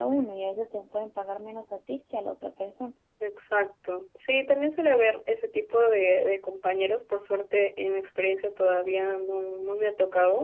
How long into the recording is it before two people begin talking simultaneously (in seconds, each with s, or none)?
none